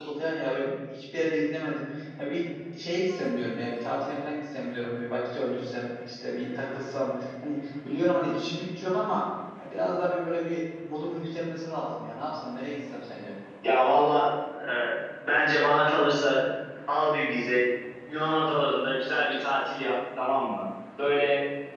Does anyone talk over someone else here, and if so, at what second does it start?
none

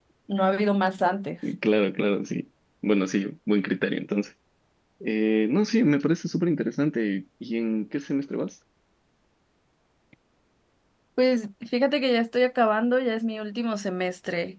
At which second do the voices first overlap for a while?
none

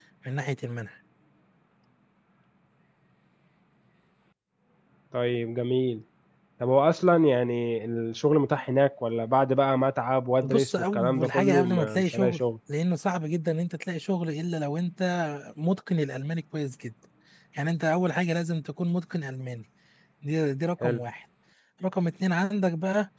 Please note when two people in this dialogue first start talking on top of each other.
10.4 s

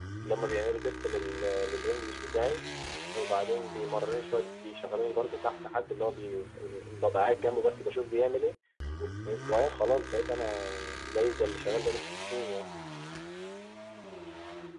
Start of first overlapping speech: none

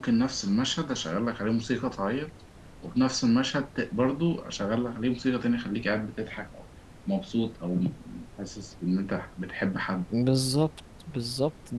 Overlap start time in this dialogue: none

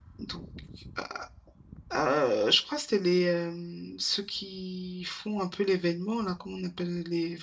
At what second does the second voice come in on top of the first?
none

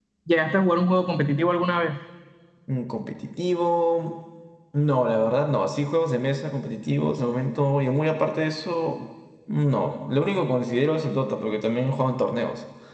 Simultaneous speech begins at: none

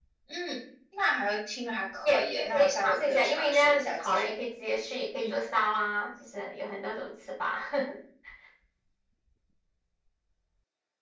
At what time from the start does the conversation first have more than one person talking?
2.0 s

